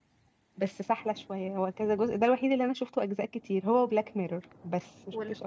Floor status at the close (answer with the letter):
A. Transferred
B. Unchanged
A